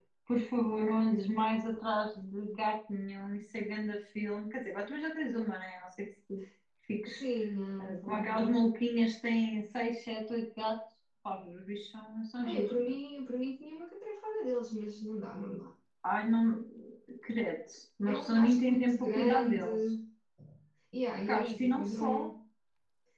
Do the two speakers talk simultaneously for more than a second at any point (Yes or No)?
Yes